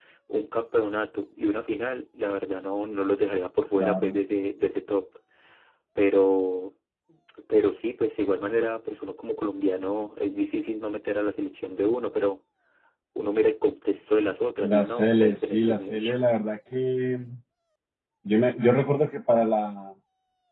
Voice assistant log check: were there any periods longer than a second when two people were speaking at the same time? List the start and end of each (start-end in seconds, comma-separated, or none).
14.6-16.2